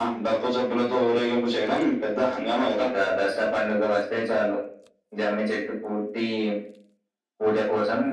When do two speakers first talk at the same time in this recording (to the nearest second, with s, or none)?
none